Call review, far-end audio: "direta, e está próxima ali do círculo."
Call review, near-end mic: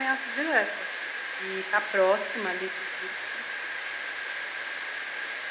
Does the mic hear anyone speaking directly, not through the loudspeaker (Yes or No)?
No